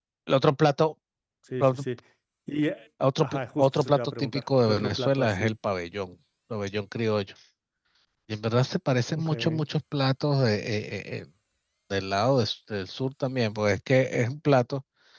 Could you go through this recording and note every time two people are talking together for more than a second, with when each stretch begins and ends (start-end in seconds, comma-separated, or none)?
3.2-5.5